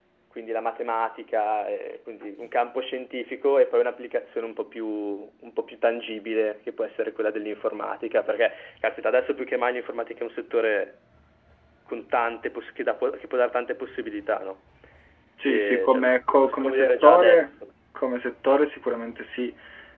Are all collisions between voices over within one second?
No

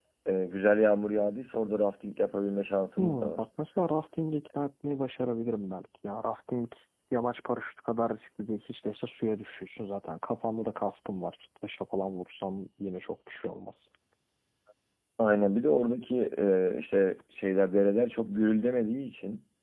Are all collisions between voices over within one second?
Yes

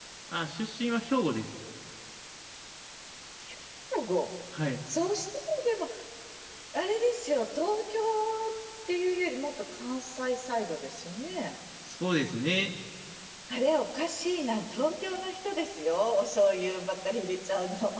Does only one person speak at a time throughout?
Yes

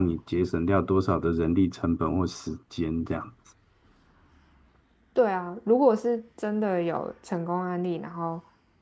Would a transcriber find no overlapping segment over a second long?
Yes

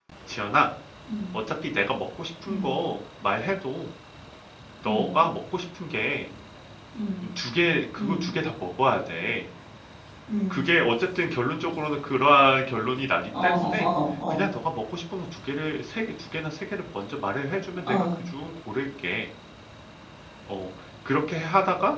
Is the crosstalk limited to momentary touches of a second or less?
Yes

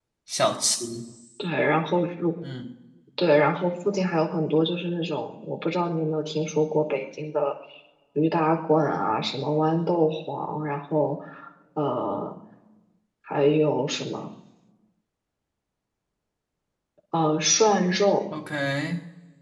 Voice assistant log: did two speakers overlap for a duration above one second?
No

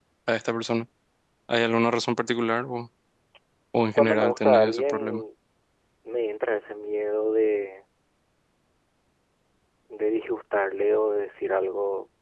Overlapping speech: Yes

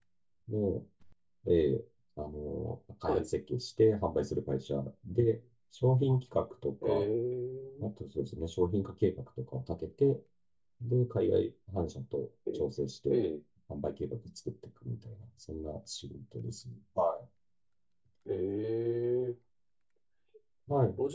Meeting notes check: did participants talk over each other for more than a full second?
No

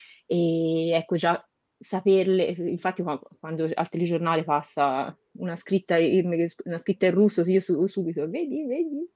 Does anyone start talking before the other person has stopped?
No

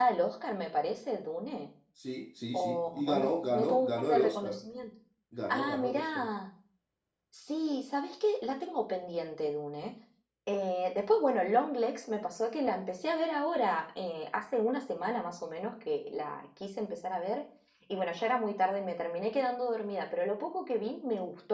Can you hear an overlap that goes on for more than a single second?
Yes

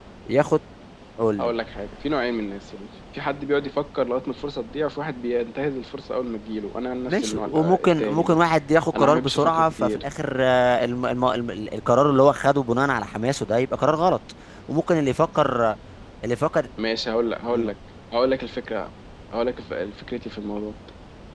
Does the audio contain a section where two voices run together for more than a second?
Yes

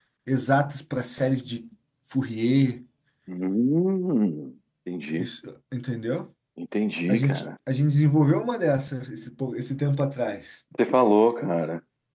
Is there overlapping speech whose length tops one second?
No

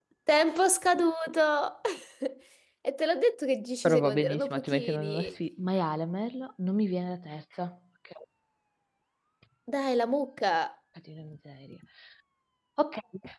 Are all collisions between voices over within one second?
No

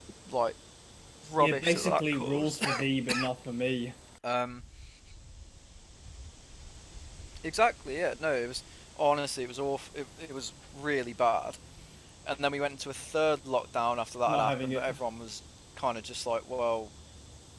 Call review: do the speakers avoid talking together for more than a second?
No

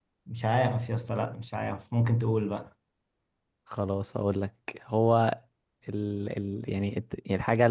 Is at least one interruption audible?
No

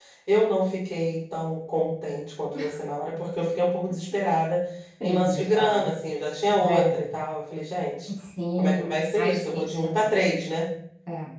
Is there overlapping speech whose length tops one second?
Yes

